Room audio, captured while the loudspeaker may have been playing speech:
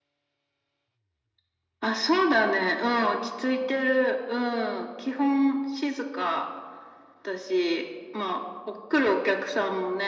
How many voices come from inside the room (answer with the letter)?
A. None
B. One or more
A